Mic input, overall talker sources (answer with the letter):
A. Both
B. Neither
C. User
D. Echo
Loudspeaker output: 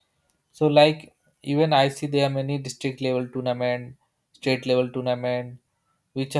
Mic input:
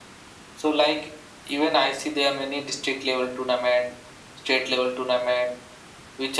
D